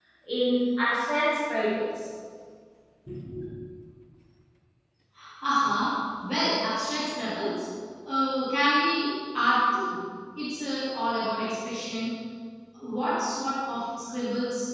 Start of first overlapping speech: none

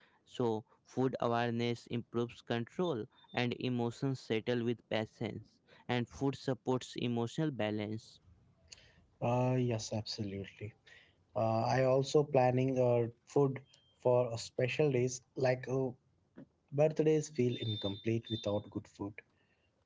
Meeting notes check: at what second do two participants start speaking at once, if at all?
none

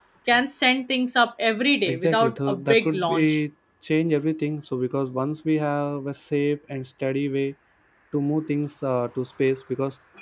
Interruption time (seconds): 2 s

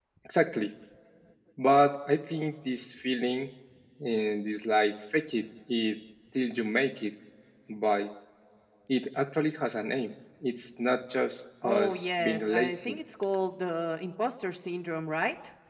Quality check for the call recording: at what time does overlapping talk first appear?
12 s

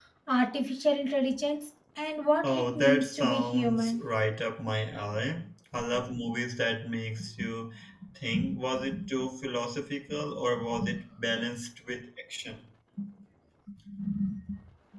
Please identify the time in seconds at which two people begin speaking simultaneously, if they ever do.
2 s

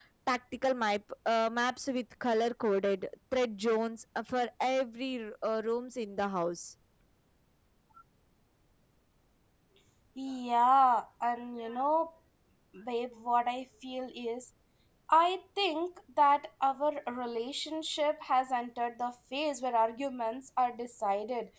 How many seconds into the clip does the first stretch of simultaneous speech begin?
none

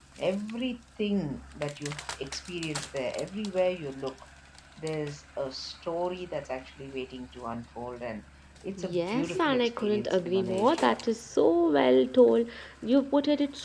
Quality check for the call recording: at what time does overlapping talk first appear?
9 s

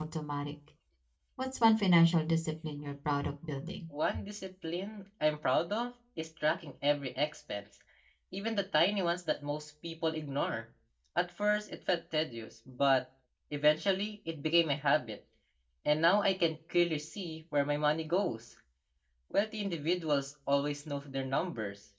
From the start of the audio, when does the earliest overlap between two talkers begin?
none

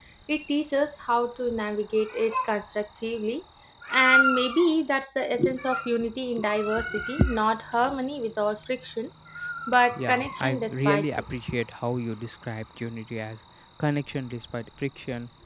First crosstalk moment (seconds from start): 10 s

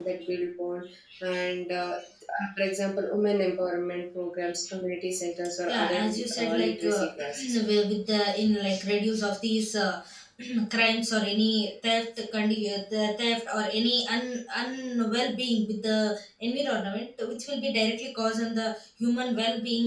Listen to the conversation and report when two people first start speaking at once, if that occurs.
6 s

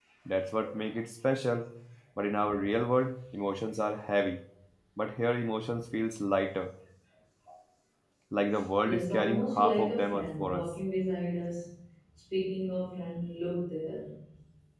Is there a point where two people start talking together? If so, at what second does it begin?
9 s

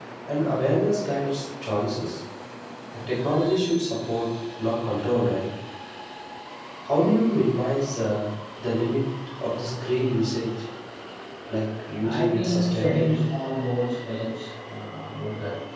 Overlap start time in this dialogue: 12 s

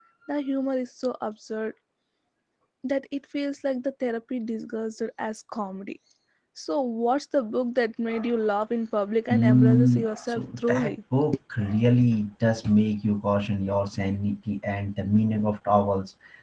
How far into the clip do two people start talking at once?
9 s

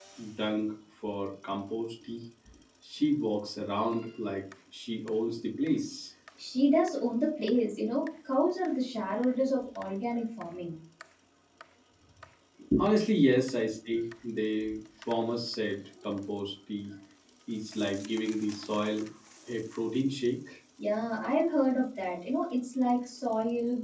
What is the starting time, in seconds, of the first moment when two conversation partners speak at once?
none

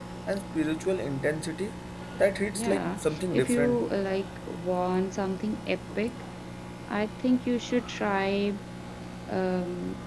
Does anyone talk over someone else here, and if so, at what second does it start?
3 s

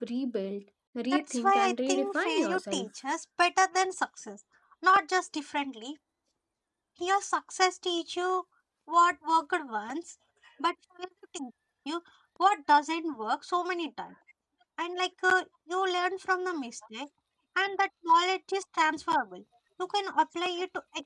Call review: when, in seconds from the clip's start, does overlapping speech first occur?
1 s

